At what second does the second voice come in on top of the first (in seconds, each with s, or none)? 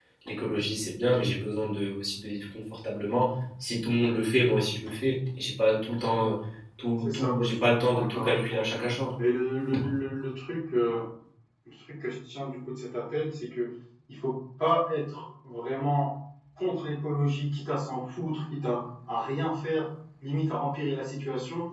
7.0 s